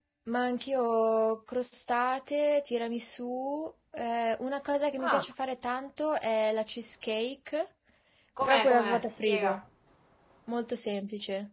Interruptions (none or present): present